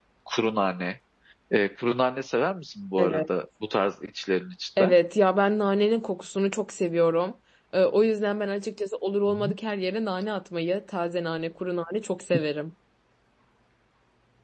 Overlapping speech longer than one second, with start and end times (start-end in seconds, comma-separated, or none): none